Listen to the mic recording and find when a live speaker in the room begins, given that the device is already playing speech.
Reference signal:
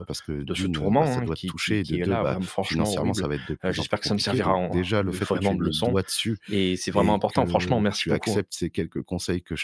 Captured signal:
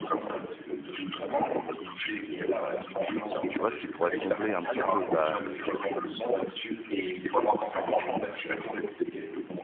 3.5 s

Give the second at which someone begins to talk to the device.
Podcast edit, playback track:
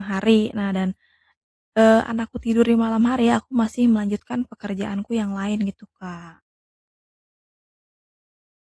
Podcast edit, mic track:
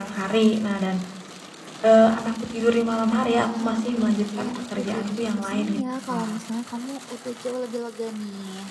3.4 s

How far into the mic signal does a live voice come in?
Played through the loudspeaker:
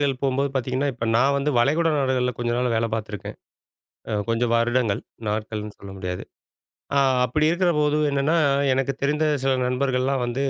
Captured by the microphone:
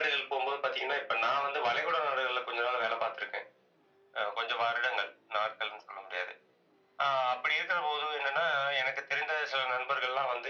none

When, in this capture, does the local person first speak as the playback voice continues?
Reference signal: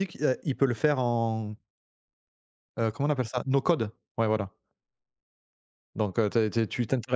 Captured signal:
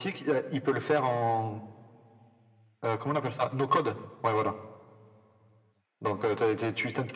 none

